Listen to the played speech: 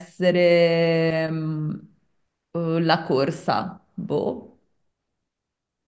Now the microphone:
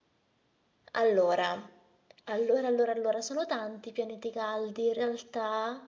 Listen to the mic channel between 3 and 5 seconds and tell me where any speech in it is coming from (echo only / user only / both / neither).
user only